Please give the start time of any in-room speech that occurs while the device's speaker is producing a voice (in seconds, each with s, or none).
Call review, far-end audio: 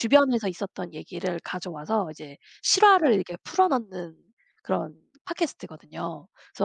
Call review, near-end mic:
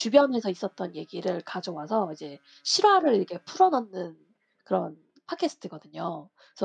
none